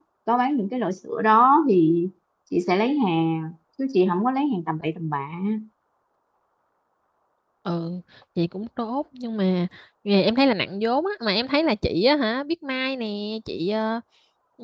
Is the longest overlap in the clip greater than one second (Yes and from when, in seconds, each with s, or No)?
No